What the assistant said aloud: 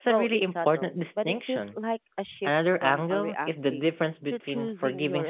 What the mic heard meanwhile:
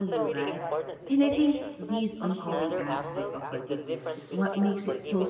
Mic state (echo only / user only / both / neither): both